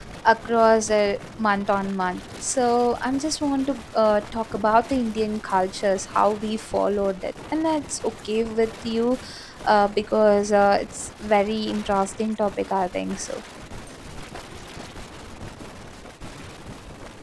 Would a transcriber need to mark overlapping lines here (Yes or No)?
No